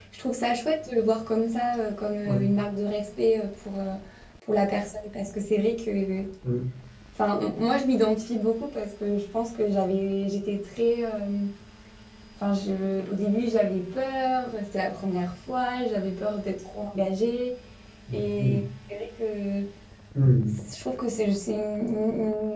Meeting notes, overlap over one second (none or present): none